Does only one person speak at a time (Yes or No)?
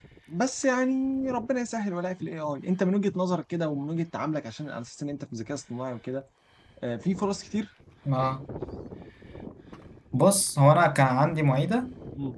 Yes